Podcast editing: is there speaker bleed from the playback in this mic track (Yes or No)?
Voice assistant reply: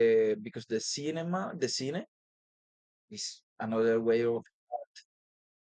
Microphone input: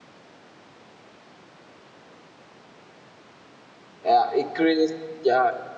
No